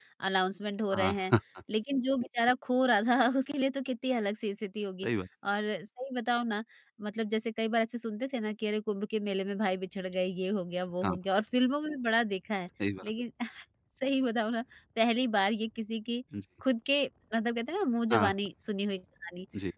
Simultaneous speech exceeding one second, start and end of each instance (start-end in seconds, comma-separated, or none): none